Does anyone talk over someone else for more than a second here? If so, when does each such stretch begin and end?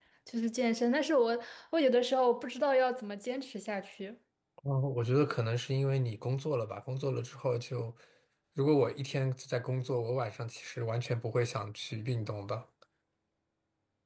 none

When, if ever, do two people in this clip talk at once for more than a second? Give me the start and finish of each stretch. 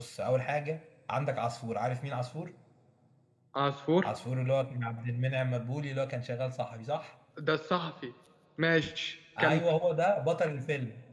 none

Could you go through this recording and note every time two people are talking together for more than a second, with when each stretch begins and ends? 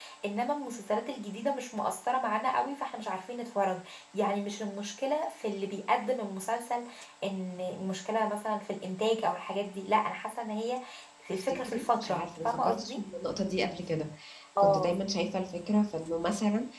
11.3-13.0

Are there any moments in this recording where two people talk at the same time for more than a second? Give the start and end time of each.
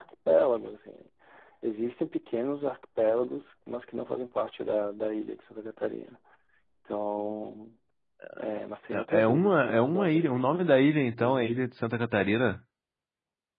8.9-10.4

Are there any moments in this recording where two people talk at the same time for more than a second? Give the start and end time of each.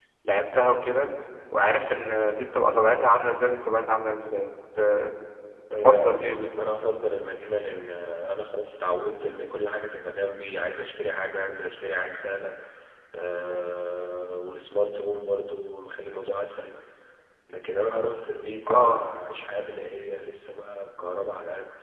none

